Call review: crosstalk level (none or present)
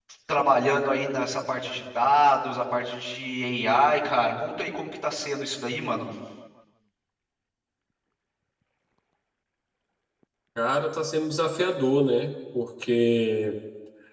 none